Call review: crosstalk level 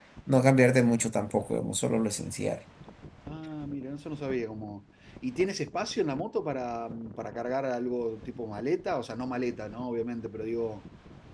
none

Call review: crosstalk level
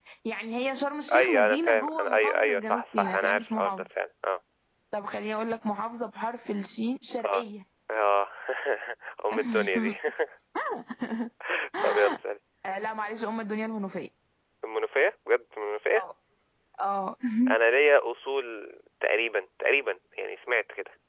present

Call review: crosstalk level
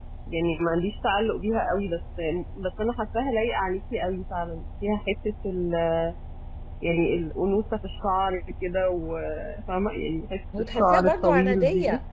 present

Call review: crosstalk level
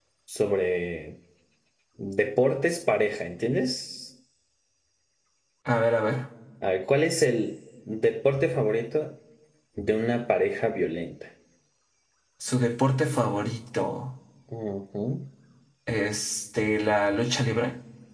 none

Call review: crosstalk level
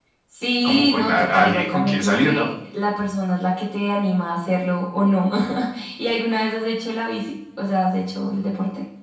present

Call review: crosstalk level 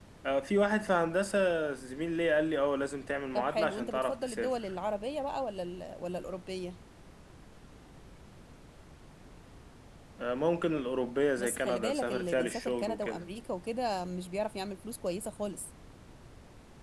present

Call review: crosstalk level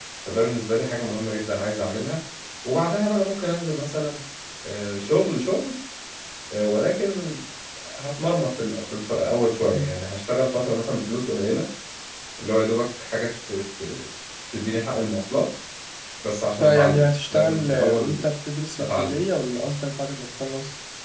present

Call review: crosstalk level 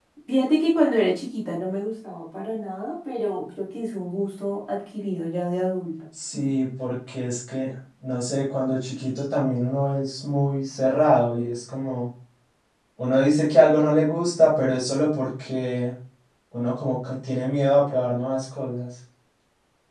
none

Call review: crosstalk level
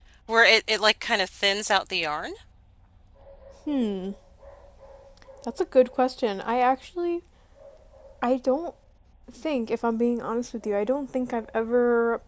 none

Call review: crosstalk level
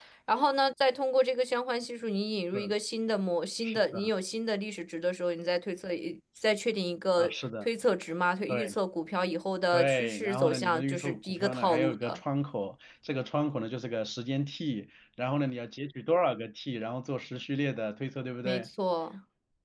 present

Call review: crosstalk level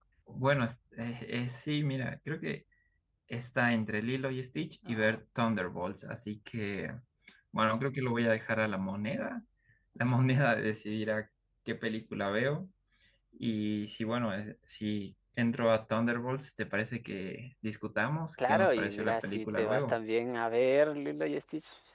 present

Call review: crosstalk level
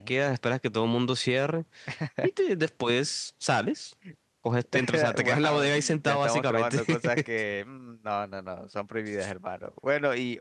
present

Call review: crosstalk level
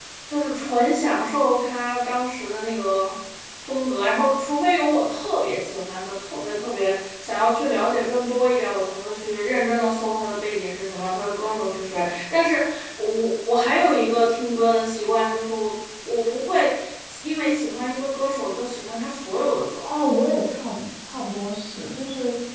none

